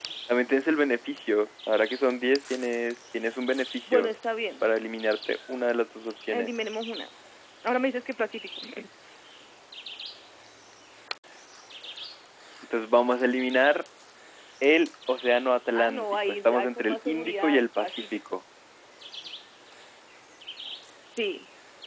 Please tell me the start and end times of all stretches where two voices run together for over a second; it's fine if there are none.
15.7-18.2

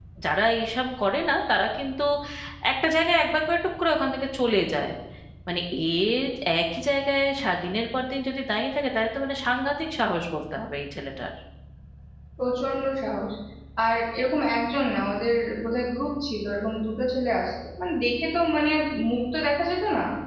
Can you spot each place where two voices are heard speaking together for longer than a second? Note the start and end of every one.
none

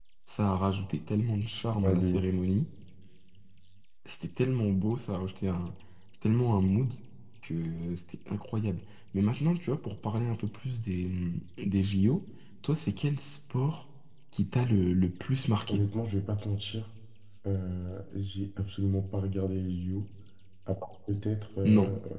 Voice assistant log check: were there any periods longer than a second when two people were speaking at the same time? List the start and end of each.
none

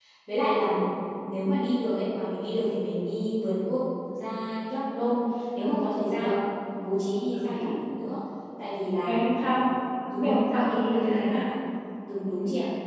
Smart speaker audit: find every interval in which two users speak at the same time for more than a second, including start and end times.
10.2-11.4

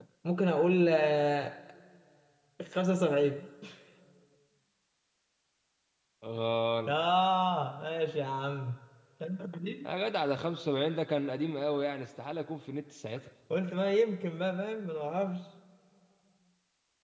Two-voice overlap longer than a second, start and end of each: none

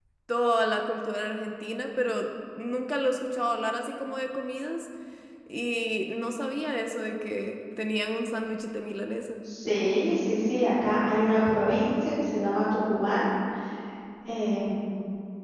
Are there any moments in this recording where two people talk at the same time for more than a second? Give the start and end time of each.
none

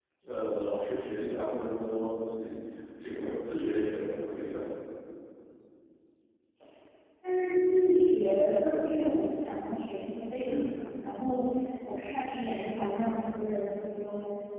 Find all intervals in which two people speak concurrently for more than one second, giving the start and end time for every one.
none

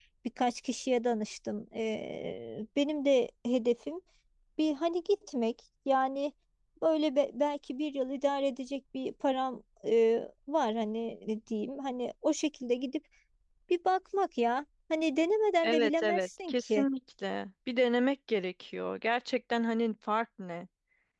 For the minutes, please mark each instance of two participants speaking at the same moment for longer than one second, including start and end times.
15.6-16.8

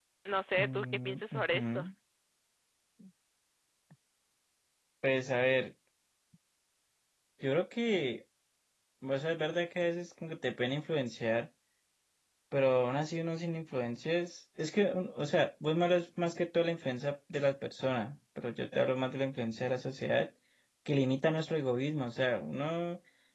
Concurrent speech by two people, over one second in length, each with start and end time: 0.6-1.8

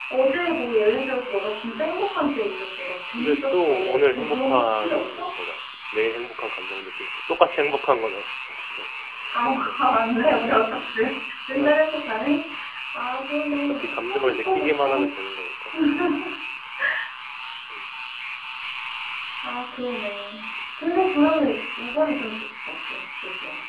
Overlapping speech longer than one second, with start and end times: 3.2-5.3, 13.7-14.9

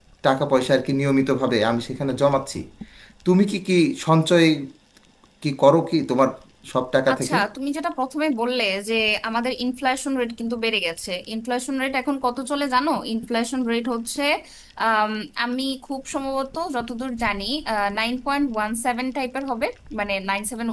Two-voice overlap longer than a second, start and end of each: none

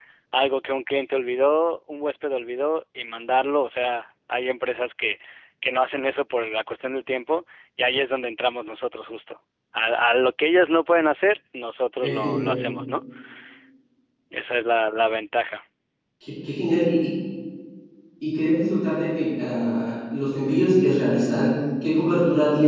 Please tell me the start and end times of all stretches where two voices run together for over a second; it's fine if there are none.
none

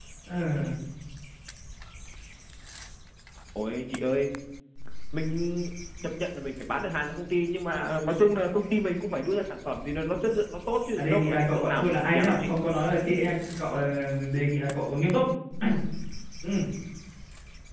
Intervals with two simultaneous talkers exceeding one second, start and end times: 11.0-12.4

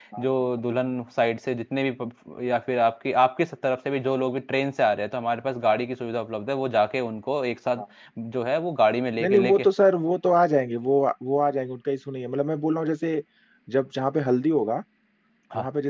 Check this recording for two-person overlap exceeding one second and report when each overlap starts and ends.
none

